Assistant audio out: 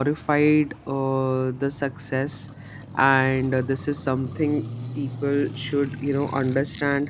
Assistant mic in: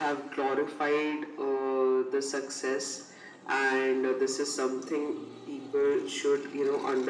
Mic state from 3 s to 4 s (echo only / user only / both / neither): echo only